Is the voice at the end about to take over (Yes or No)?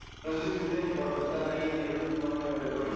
Yes